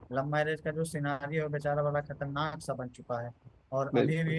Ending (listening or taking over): listening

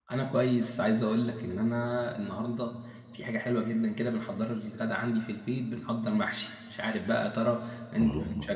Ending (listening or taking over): listening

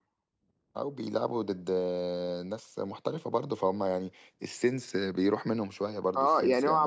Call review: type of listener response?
taking over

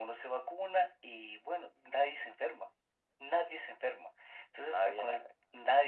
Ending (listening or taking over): listening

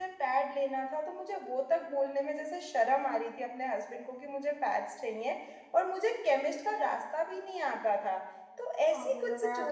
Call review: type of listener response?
listening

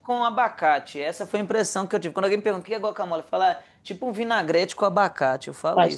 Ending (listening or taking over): taking over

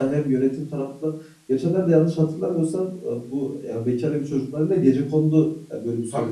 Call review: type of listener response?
taking over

